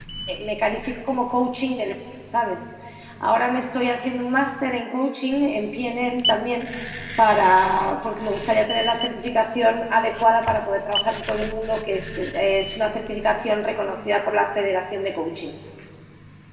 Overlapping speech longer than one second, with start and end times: none

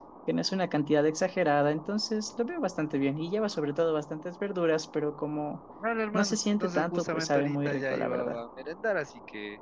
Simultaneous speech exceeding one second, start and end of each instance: 6.1-8.4

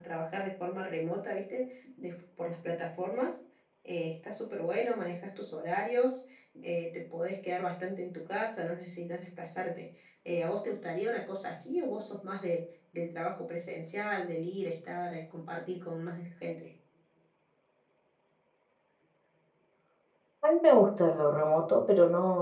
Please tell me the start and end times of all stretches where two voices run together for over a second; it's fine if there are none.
none

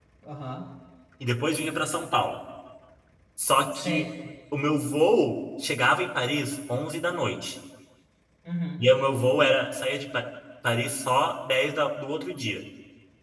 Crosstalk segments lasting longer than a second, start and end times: none

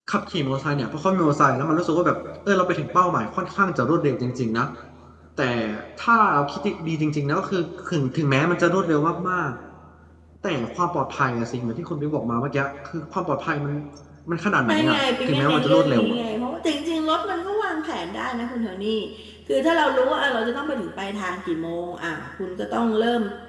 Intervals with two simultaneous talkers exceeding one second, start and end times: 14.7-16.2

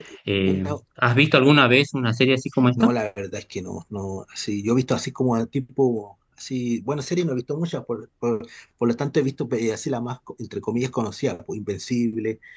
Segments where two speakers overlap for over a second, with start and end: none

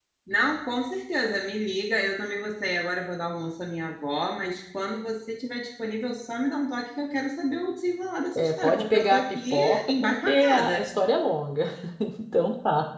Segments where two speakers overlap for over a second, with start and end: 8.4-10.9

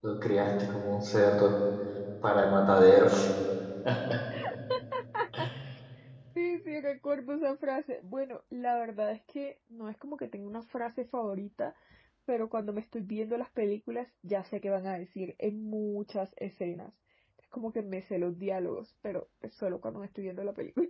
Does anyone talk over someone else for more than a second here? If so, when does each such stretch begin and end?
none

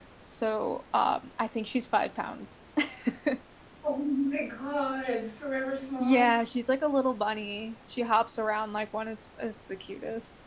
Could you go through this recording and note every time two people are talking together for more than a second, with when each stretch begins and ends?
none

